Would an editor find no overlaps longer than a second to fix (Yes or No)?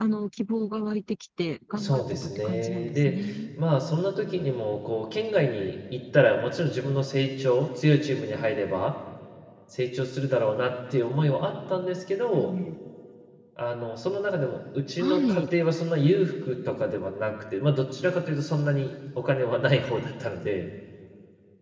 No